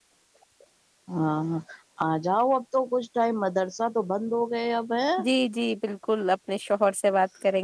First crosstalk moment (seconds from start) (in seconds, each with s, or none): none